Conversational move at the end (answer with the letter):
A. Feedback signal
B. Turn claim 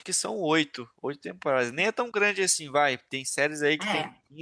A